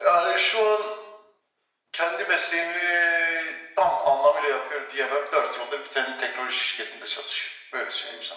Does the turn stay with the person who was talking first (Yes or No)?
No